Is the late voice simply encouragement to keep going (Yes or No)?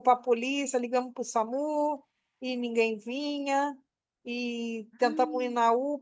Yes